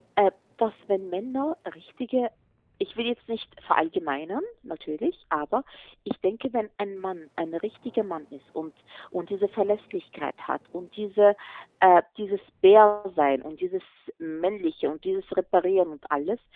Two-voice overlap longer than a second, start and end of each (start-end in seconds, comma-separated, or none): none